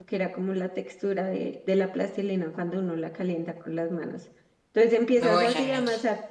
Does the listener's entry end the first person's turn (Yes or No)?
No